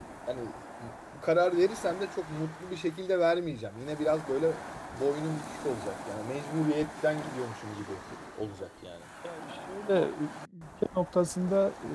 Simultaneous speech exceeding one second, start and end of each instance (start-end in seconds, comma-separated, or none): none